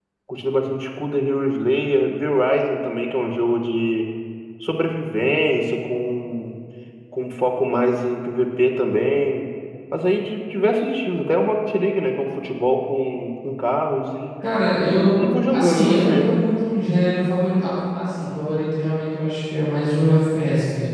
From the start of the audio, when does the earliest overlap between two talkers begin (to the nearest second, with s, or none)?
15 s